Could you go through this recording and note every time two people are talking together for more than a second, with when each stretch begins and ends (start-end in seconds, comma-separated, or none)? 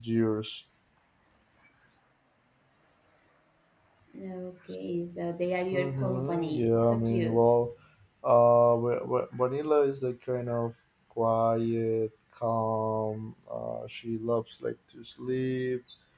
5.7-7.6